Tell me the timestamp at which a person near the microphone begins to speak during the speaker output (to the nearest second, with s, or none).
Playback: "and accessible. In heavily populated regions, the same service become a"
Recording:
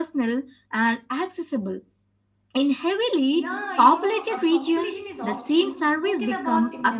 3 s